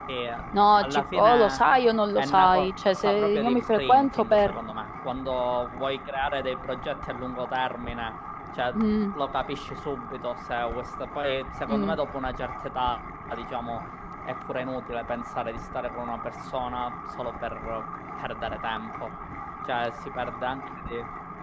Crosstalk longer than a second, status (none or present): present